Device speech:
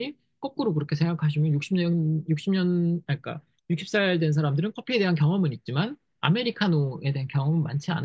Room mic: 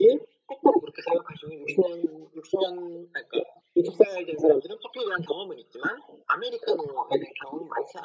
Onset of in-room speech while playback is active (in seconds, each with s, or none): none